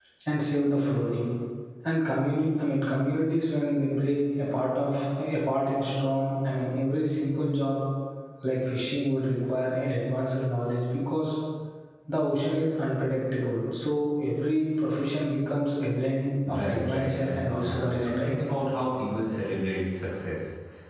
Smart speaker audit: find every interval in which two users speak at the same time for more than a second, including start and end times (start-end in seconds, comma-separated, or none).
16.5-18.4